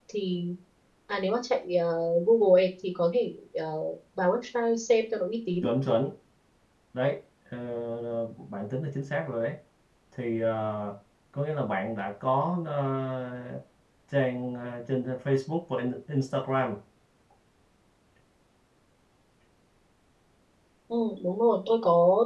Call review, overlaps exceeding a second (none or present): none